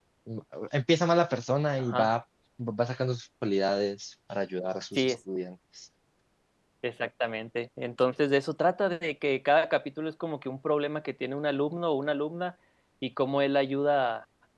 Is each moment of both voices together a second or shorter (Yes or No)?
Yes